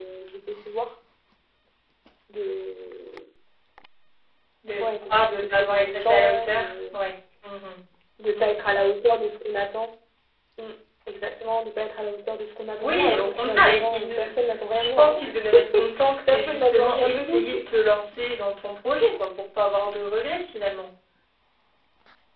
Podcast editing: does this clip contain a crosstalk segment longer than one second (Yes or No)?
Yes